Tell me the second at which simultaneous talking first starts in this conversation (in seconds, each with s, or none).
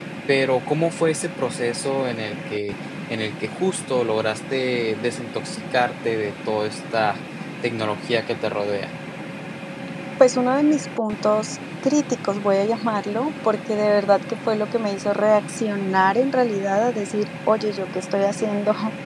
none